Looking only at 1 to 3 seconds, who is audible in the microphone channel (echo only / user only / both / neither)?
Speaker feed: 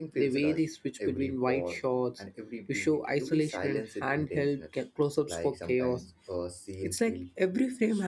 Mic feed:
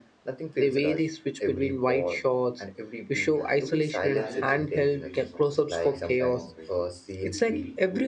echo only